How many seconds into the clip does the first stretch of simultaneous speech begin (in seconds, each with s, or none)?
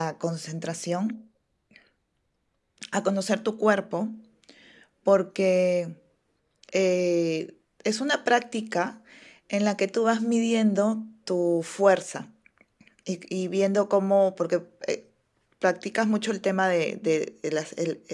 none